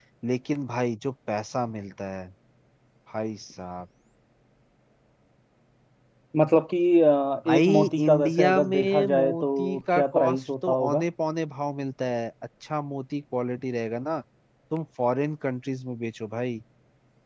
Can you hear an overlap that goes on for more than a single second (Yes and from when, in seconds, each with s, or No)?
Yes, from 7.4 s